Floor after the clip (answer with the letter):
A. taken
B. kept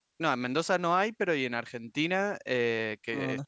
B